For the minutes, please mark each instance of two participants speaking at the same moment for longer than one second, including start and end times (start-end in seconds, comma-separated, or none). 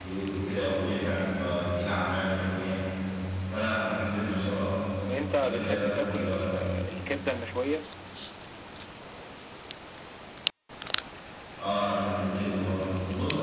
5.3-6.5